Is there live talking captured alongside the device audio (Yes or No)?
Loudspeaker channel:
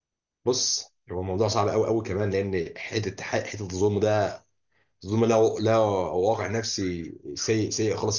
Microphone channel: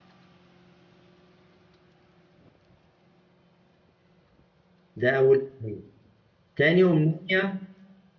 Yes